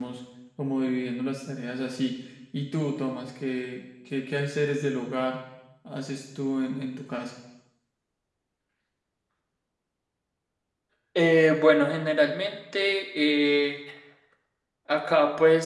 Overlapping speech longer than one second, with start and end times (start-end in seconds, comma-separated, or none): none